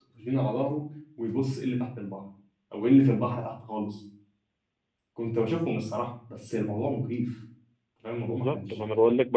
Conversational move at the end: taking over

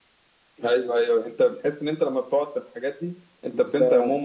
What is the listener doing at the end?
taking over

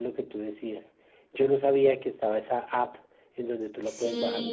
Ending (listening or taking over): taking over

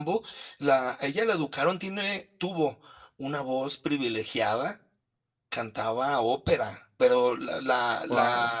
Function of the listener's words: listening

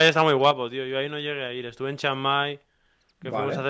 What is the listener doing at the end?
listening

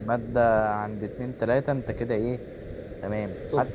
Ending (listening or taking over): listening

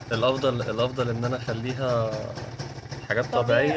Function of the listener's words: taking over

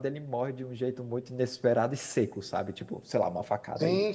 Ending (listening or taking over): listening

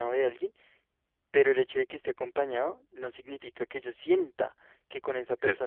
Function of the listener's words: listening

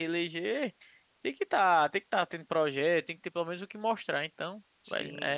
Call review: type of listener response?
taking over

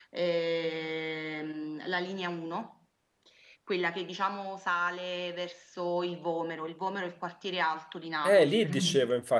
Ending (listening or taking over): taking over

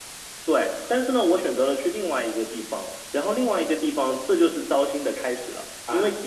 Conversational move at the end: listening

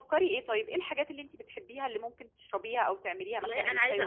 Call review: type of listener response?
taking over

